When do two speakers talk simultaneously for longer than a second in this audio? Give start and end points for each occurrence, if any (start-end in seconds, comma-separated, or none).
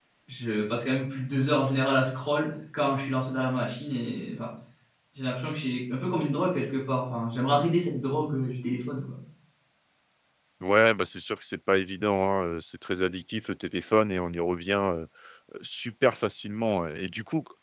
none